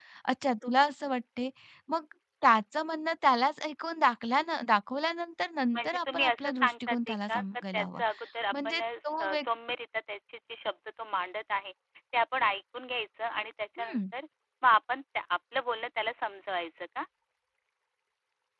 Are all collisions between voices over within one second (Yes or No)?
No